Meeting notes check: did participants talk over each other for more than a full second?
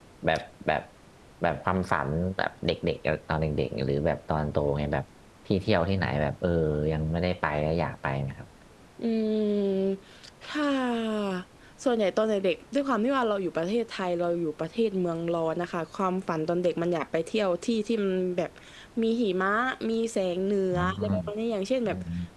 No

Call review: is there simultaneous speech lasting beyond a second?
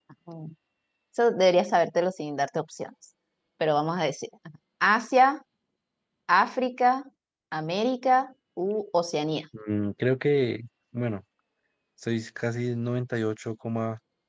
No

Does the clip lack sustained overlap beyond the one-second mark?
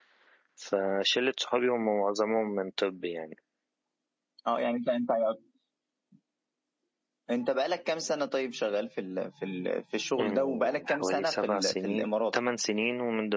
No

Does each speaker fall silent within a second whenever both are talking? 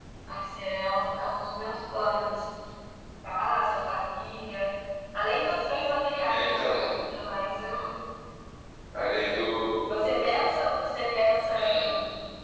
Yes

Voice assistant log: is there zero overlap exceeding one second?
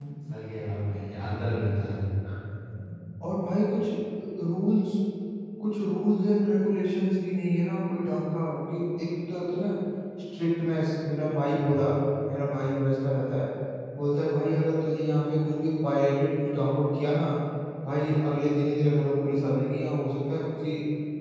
Yes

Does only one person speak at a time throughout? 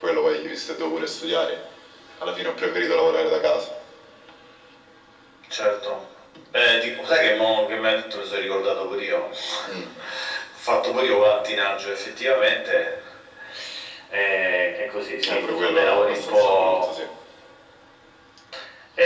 No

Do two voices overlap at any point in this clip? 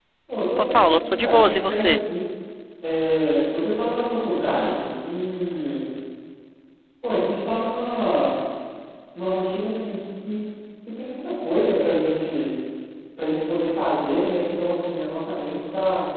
Yes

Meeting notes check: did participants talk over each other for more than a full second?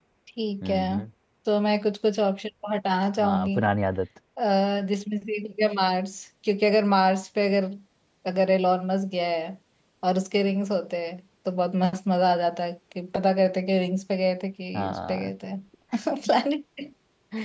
No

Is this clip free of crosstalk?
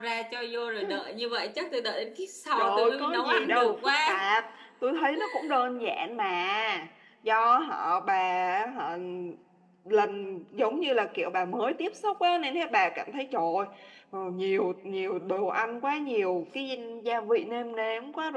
No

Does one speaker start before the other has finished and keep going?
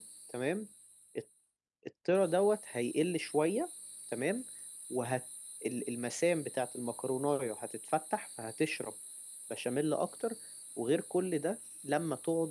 No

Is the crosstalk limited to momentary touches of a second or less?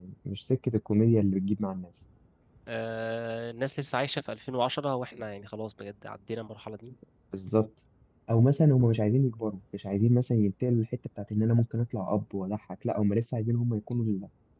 Yes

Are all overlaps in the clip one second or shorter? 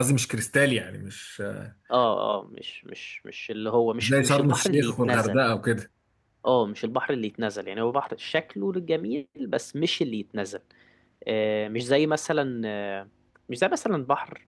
No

